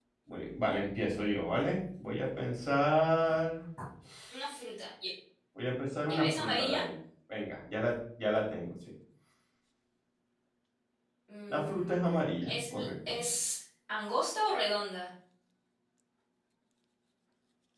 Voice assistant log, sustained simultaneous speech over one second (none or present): present